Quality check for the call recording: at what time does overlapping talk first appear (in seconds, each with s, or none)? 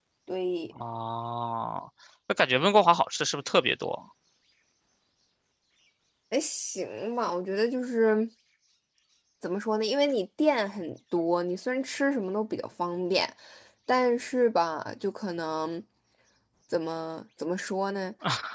none